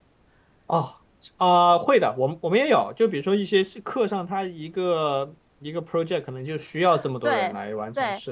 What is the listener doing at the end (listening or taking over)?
taking over